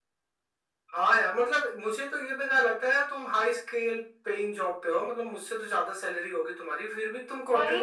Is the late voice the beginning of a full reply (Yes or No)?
Yes